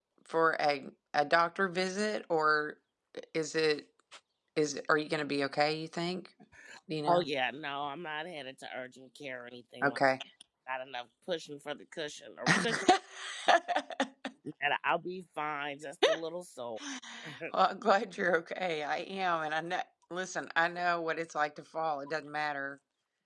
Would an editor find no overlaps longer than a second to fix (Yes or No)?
Yes